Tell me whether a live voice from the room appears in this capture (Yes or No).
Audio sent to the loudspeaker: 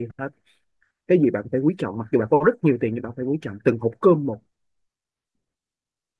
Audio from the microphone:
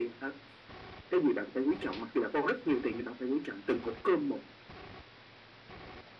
No